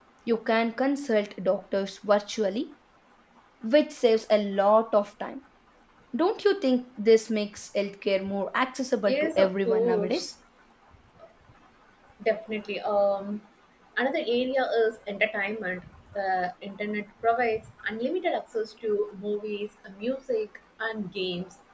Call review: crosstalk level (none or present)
present